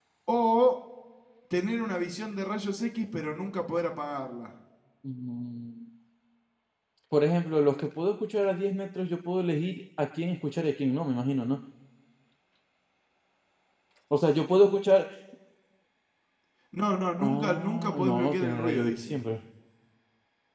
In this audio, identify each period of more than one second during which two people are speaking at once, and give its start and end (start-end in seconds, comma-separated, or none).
17.2-19.2